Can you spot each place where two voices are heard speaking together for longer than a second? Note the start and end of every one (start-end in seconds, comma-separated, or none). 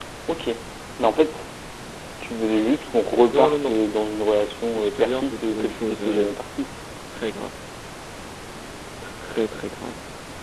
4.8-6.3